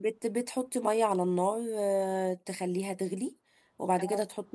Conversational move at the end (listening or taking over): listening